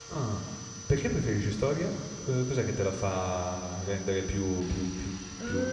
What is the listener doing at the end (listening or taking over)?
taking over